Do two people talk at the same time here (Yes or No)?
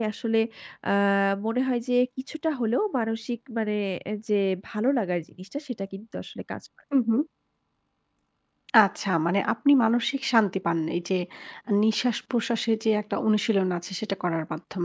No